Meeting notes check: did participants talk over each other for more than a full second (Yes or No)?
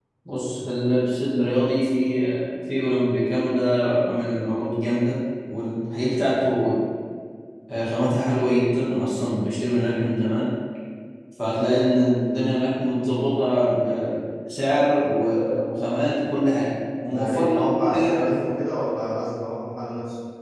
Yes